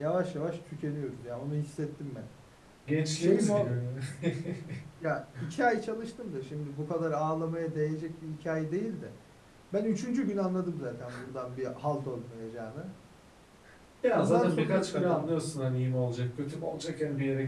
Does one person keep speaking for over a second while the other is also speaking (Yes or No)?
Yes